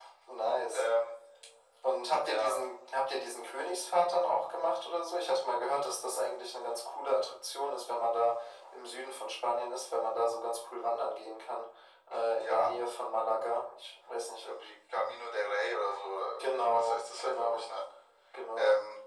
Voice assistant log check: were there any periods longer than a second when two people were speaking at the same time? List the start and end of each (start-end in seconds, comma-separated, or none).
16.4-17.6